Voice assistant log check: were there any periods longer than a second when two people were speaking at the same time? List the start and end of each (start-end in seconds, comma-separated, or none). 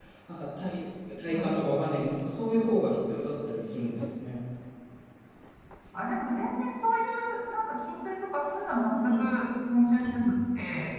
none